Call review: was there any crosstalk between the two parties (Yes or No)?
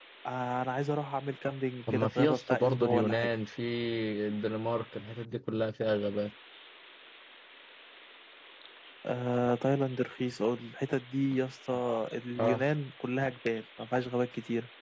Yes